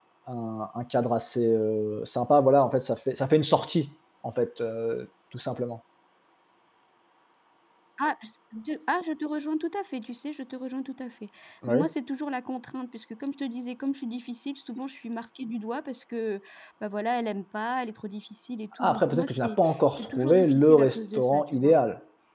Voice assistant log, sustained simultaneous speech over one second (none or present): present